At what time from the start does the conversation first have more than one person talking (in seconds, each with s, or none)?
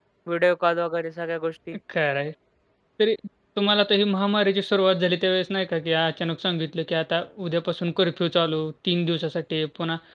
none